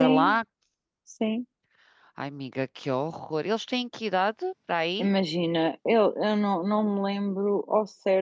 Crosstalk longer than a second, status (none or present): none